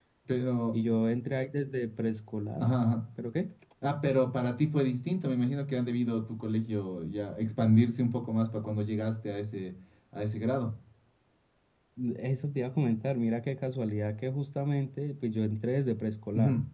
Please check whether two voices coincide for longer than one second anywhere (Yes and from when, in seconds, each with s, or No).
No